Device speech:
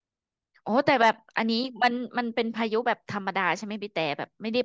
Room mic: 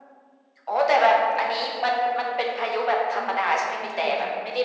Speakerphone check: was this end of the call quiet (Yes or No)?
No